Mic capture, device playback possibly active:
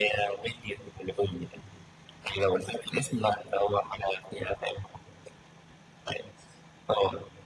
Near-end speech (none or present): none